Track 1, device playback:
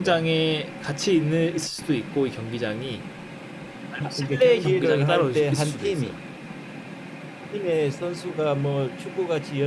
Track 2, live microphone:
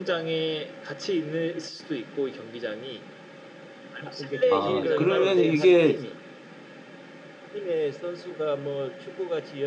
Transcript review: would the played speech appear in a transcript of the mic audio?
Yes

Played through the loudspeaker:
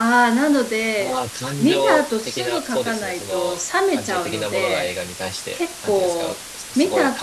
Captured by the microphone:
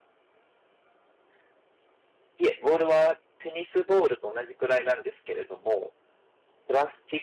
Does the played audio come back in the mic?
No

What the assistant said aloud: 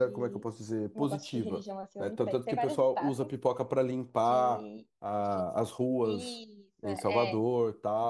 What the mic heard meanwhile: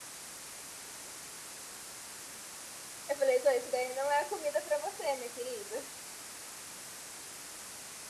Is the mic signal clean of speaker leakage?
Yes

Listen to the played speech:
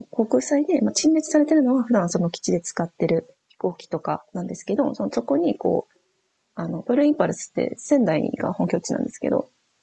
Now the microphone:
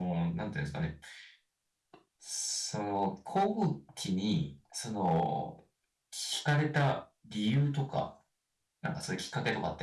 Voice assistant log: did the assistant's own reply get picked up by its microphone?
No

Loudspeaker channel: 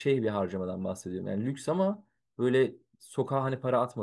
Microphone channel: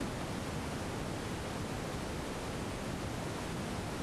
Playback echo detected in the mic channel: No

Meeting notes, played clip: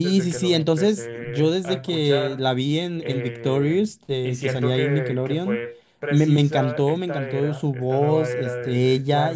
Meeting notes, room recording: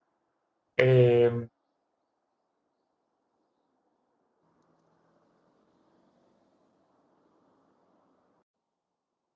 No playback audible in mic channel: Yes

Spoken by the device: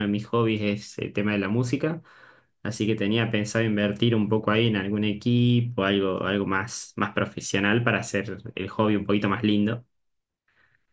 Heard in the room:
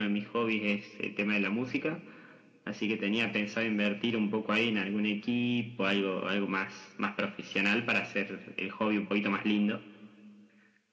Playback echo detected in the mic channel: Yes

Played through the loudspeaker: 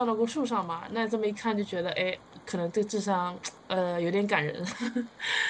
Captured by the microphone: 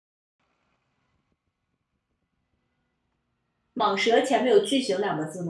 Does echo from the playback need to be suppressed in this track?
No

